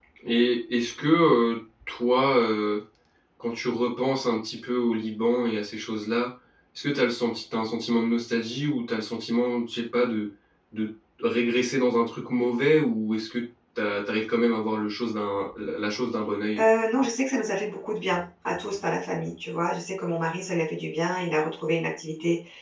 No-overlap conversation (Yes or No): Yes